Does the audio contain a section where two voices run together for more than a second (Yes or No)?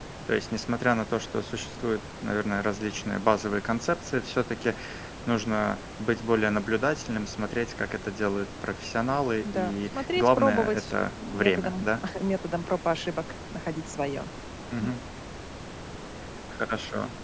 Yes